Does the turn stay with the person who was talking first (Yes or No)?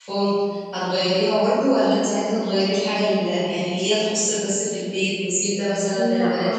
No